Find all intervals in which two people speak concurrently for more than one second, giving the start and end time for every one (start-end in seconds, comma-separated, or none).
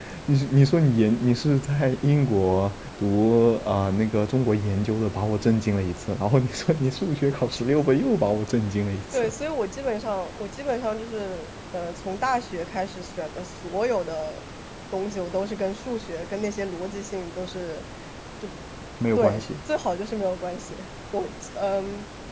none